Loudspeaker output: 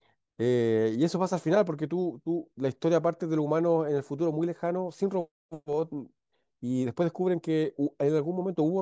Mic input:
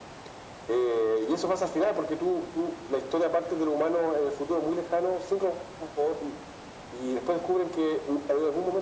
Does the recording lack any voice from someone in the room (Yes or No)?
Yes